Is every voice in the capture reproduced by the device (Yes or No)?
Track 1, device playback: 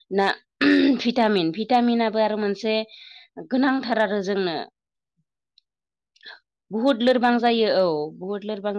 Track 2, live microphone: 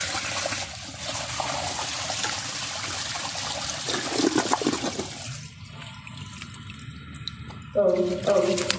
No